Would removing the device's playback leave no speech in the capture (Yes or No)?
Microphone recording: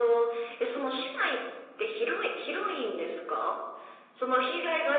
Yes